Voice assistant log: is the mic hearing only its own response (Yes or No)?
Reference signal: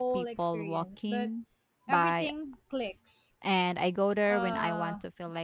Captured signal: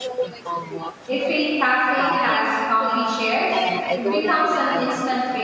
No